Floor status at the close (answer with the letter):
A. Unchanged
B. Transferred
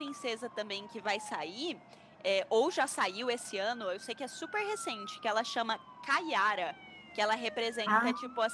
A